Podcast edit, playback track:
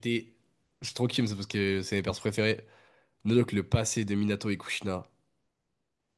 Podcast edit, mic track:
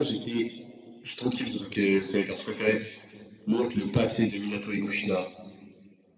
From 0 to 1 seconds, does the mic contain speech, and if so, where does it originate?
echo only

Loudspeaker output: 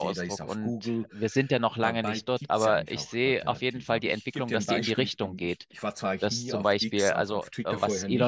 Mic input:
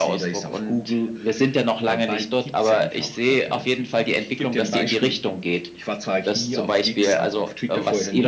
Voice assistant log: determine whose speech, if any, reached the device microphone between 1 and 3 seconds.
echo only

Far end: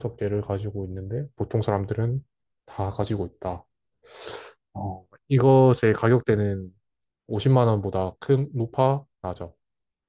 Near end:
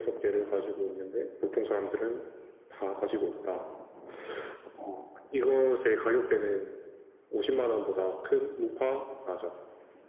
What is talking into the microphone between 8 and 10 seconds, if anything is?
echo only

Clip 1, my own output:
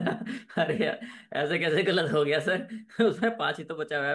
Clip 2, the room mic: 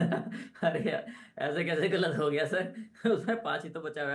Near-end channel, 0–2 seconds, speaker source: echo only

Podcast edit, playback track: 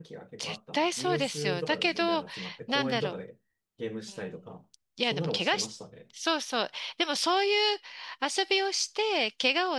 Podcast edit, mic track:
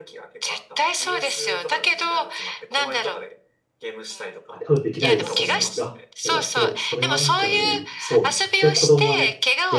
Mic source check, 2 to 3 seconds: echo only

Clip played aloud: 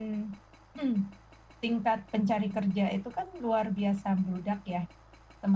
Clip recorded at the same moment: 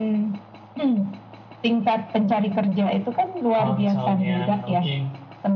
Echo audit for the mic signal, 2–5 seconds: both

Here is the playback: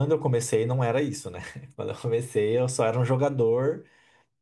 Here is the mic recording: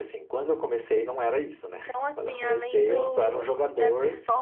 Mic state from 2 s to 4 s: both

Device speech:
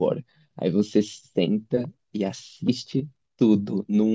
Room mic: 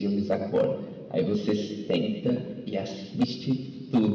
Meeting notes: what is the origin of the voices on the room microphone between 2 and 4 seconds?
echo only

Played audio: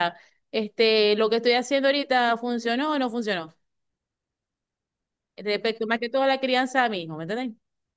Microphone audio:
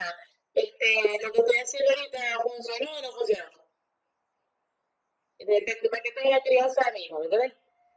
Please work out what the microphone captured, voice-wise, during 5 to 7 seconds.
echo only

